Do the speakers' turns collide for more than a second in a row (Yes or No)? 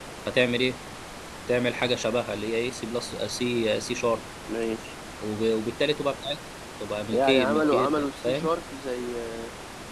Yes